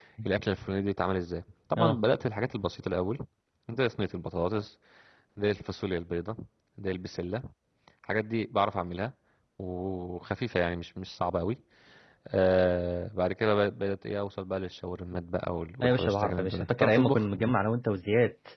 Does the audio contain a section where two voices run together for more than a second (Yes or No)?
Yes